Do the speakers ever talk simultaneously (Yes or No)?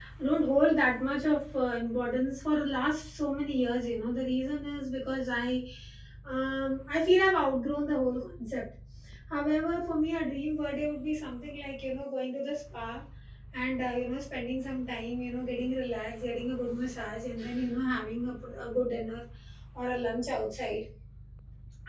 No